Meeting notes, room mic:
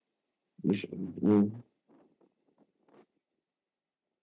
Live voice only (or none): مش مم.